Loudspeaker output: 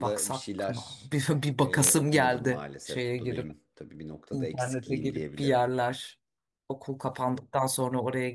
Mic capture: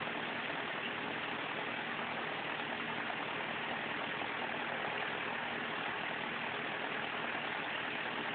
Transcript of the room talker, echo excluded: none

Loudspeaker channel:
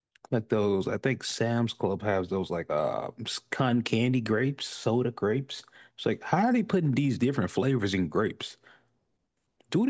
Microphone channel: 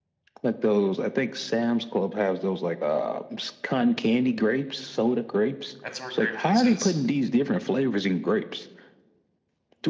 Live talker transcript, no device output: That's where grape juice is.

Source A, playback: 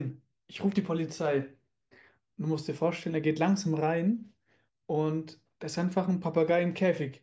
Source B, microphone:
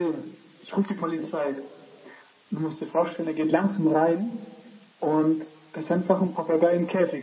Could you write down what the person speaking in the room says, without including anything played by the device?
none

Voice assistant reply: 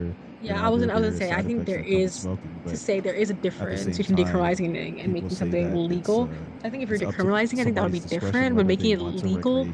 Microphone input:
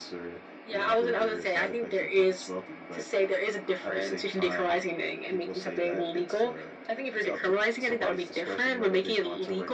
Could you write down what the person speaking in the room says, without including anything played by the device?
none

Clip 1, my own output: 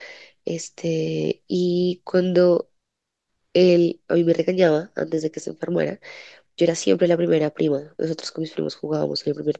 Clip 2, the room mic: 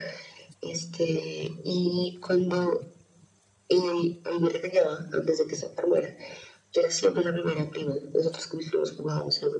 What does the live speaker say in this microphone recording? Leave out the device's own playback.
none

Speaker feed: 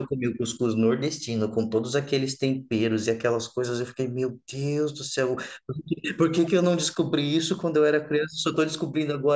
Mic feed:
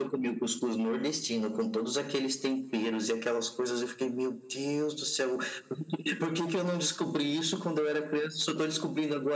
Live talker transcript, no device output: none

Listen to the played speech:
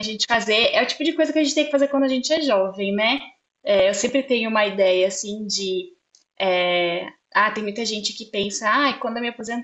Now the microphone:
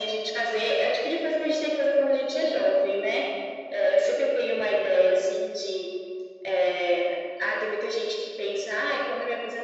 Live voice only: none

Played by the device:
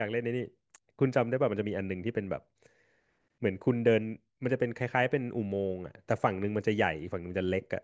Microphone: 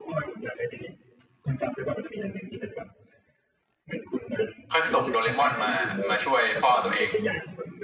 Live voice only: ค่อยส่งโดเรมอนมามาช่วยพ่อตัวเอง

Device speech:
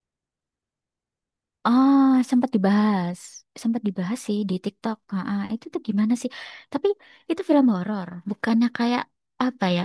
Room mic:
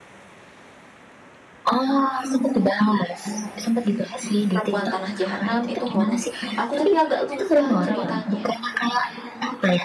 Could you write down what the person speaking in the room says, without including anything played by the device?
Perempuan Tanah Jahanam itu horor. Aku tapi agak lupa ceritanya.

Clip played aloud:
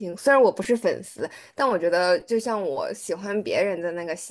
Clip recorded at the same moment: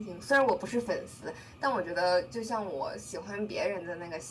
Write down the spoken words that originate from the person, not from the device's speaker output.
none

